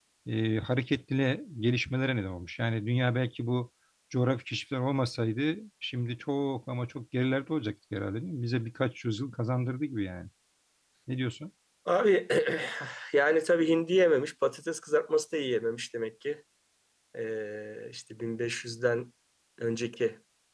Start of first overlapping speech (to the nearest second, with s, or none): none